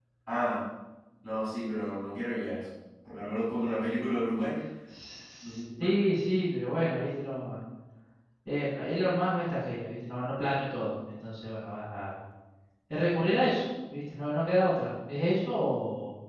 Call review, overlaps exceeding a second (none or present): none